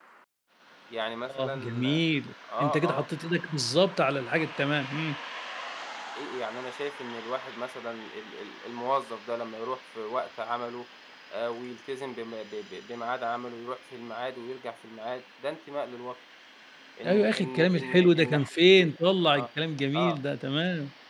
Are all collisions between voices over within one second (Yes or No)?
No